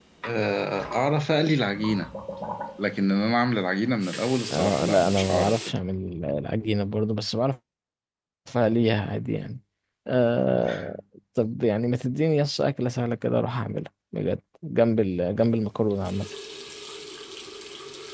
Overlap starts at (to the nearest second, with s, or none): 5 s